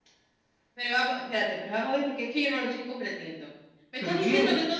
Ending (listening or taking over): listening